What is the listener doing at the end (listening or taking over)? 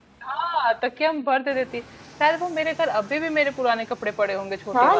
taking over